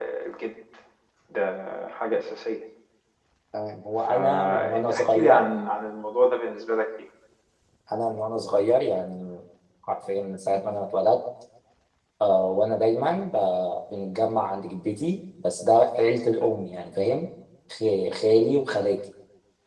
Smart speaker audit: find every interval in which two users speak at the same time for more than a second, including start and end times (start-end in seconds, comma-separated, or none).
4.1-5.4